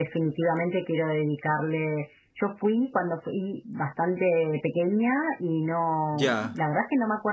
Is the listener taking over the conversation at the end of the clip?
No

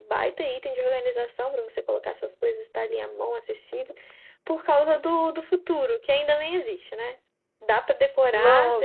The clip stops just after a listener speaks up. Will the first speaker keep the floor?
No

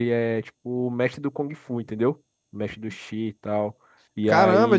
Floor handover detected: Yes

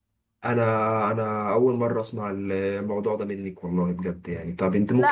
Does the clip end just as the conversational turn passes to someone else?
Yes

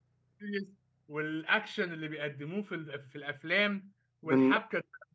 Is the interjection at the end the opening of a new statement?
No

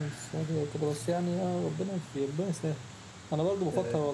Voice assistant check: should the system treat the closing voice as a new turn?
No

